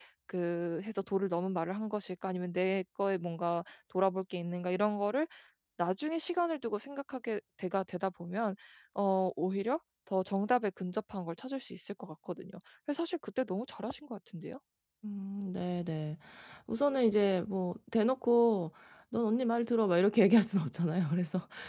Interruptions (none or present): none